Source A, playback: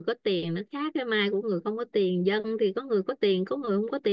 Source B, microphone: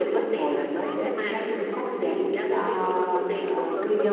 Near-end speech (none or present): present